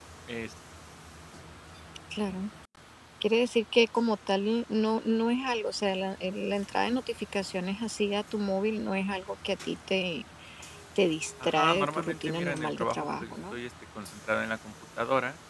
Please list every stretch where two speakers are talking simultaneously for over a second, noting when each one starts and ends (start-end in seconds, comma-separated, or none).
11.4-13.6